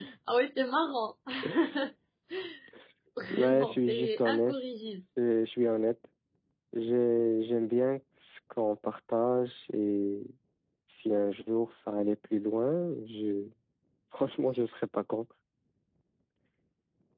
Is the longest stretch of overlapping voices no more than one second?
No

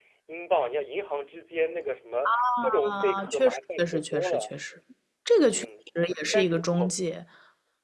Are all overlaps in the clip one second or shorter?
No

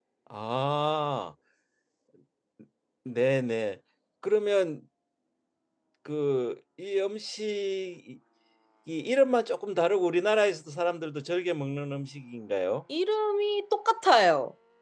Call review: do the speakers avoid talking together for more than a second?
Yes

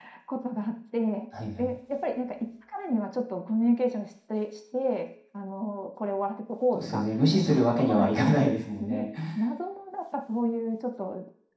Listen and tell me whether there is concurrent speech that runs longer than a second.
Yes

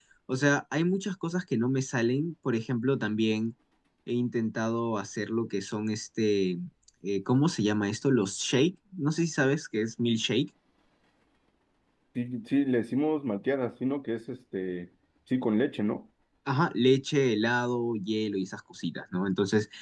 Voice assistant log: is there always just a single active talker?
Yes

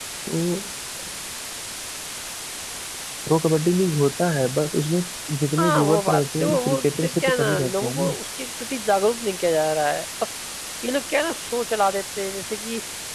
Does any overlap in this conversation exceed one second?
Yes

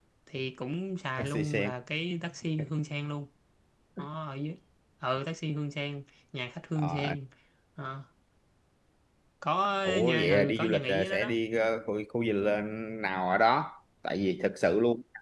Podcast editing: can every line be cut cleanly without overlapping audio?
No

